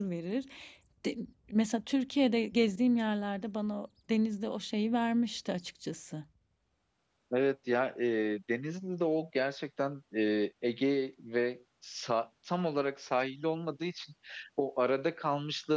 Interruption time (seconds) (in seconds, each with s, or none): none